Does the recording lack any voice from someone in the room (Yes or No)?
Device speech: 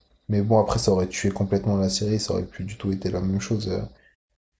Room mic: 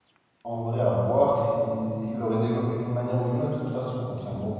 No